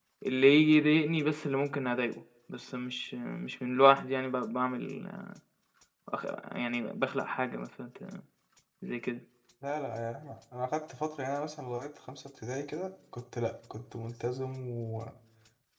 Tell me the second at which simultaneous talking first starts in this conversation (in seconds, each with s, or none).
none